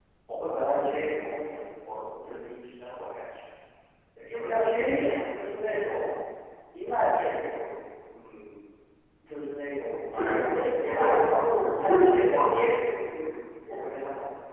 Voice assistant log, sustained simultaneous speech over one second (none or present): present